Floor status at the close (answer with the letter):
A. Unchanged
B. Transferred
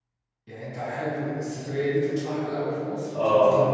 B